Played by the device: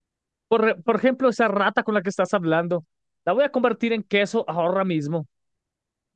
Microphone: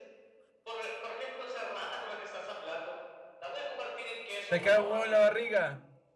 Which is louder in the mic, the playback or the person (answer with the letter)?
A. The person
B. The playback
A